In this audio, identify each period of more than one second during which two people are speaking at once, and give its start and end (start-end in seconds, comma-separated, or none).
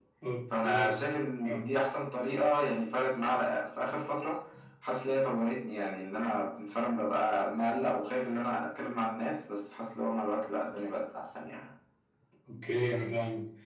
none